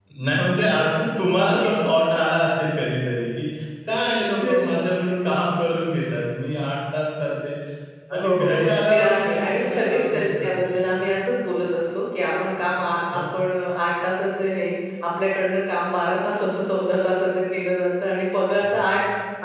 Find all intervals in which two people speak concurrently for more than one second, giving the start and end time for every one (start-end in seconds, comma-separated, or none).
8.2-10.9